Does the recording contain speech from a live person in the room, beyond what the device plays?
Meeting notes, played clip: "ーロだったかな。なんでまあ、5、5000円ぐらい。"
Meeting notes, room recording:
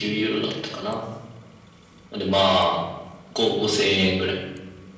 No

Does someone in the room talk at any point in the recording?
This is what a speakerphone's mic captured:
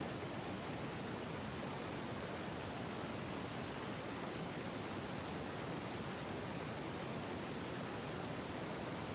No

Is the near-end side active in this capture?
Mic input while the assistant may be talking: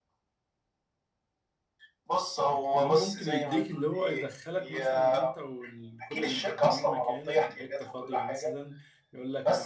Yes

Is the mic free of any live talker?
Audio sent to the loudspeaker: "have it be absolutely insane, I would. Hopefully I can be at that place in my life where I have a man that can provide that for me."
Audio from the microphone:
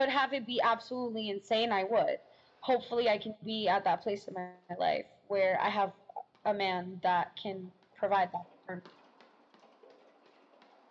Yes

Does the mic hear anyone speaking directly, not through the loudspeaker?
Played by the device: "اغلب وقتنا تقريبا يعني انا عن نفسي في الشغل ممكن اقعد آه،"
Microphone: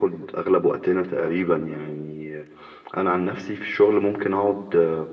No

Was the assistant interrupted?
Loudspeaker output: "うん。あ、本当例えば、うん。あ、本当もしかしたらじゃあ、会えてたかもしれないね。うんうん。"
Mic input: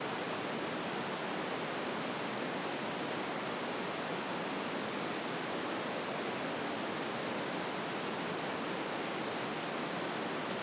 No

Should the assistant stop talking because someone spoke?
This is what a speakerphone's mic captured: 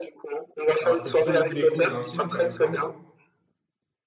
Yes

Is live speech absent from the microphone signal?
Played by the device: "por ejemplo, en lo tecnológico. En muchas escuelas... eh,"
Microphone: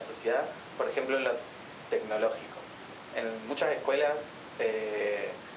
Yes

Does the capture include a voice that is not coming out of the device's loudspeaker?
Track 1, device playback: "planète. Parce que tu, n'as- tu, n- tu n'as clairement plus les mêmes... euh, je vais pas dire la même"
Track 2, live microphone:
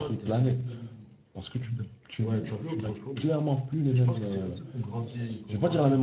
Yes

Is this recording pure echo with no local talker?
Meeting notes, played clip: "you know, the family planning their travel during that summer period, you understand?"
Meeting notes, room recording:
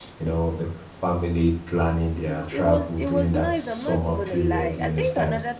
No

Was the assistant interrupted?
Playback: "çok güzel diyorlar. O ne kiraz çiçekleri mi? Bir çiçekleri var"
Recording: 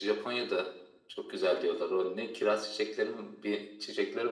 No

